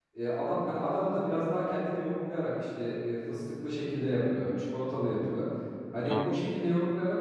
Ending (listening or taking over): listening